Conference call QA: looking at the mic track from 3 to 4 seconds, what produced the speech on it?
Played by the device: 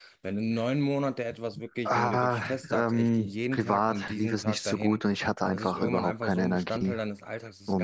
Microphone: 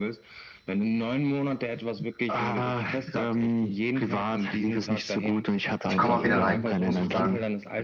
echo only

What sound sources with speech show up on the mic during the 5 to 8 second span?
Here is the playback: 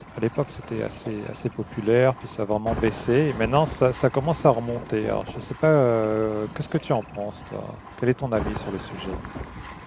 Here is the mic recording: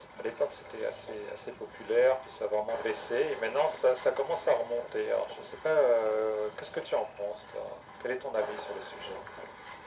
echo only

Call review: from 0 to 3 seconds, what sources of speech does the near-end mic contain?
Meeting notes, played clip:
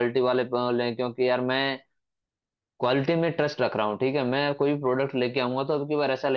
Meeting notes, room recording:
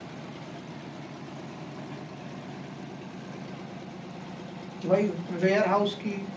neither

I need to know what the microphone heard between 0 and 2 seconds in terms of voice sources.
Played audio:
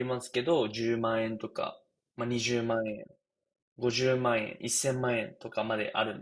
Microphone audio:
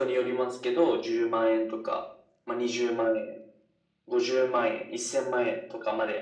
echo only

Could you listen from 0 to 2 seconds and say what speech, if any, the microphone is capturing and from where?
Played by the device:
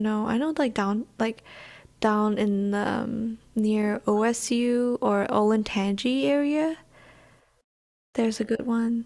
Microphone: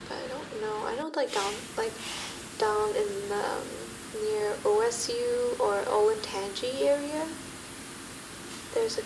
echo only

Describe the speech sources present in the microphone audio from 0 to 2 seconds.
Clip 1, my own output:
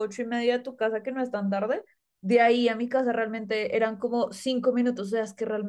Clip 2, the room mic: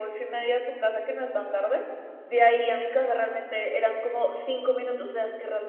echo only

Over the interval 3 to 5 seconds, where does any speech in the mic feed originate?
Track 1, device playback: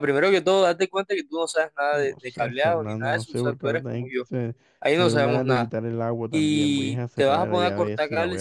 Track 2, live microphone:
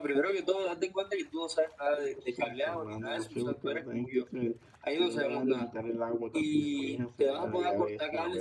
echo only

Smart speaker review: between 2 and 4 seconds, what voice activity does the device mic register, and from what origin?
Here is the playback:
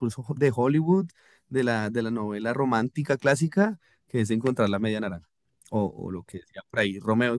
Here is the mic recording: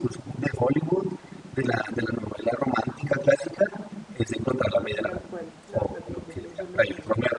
echo only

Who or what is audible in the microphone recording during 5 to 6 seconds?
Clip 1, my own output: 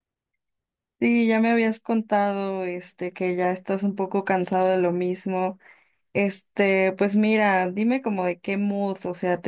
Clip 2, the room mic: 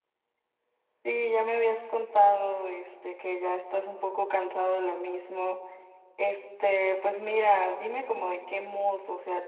echo only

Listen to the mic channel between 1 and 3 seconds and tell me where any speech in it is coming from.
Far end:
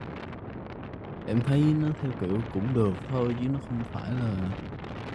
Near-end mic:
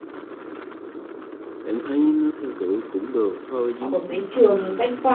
echo only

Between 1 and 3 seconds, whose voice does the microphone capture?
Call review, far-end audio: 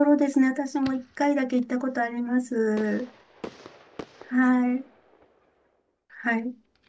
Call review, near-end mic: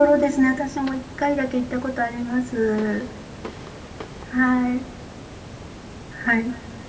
echo only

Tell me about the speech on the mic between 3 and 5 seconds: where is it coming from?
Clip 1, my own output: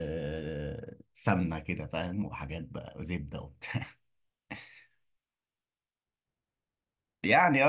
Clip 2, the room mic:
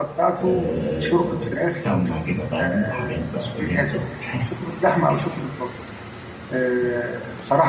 both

